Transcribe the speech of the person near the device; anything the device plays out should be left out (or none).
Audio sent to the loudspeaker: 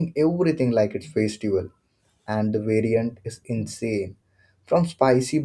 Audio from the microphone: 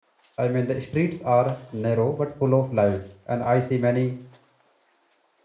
I mean the streets are narrow but full of life, and I see many